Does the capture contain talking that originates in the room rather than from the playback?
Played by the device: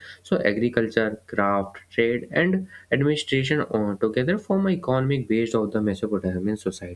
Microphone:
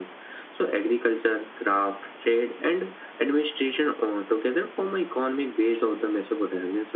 No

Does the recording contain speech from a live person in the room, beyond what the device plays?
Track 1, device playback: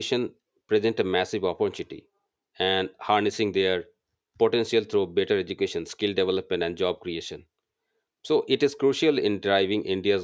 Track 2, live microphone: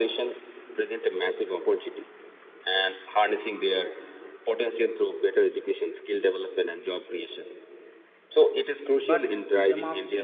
Yes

